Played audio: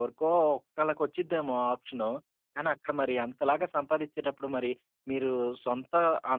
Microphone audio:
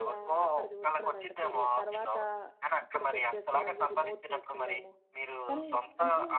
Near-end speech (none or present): present